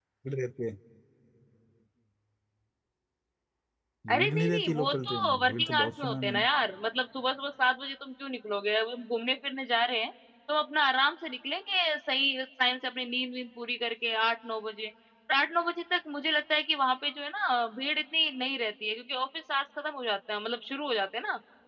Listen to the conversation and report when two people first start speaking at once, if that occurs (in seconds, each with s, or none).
4.1 s